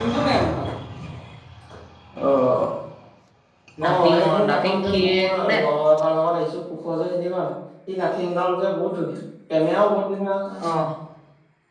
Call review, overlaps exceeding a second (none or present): present